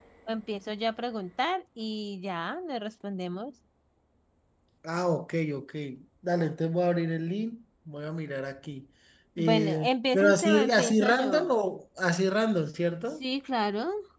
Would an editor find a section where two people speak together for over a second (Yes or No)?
Yes